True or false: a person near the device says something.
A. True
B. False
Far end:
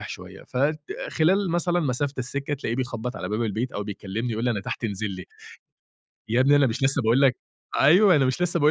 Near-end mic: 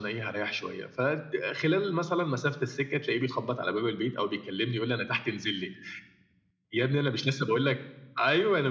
B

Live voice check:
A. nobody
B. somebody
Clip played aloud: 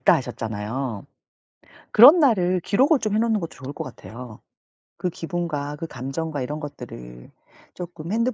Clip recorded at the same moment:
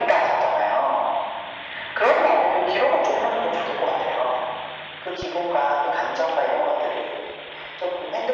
A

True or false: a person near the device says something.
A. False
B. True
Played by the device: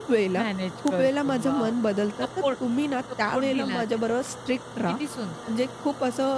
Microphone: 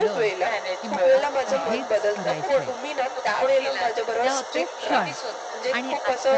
B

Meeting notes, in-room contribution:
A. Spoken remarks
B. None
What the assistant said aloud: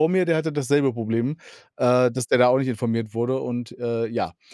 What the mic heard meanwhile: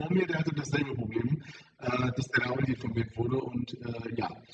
B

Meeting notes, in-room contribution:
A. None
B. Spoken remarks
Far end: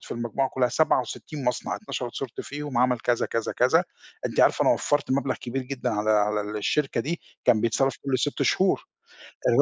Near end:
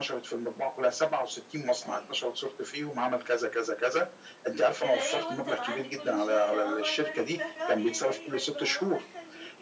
B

